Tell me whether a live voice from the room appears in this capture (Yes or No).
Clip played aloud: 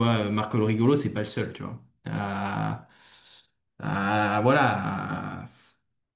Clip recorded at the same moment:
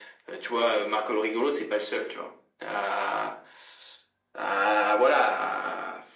No